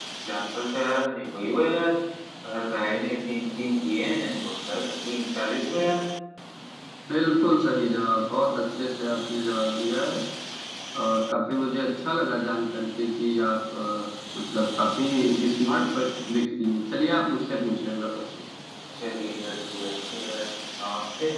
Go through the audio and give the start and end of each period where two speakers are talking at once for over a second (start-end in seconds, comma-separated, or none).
none